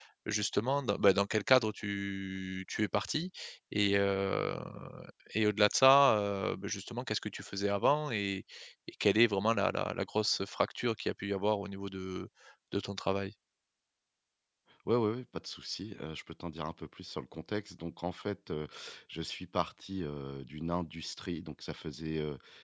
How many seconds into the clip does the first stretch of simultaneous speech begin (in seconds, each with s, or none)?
none